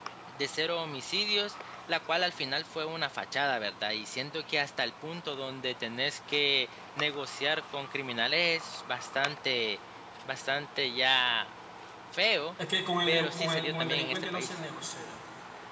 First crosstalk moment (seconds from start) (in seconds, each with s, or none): 13.1 s